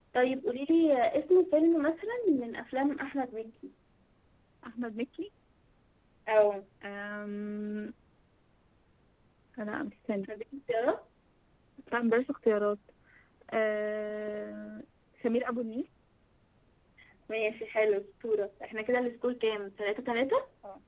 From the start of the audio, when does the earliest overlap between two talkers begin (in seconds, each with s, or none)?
none